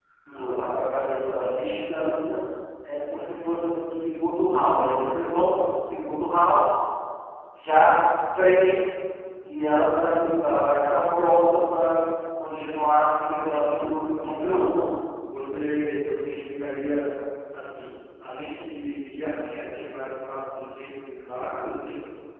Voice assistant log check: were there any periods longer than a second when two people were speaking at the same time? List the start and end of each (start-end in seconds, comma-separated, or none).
12.4-13.8